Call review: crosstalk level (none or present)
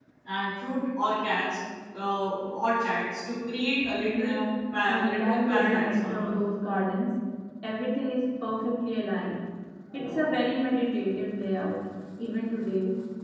present